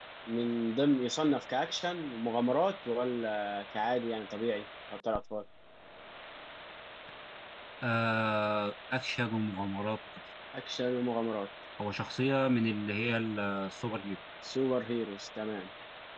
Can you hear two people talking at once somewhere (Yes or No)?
No